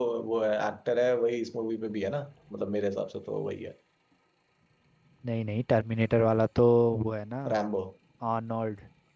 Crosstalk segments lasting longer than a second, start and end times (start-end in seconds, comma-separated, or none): none